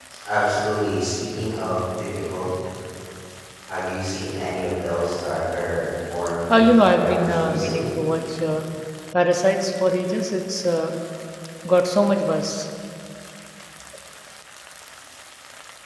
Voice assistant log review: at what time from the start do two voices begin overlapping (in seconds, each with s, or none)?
6.5 s